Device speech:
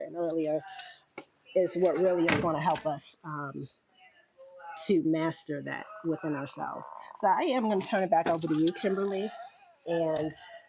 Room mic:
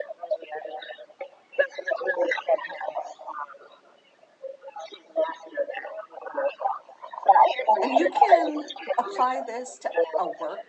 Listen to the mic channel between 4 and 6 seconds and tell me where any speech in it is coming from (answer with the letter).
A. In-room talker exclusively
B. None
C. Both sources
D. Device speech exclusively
D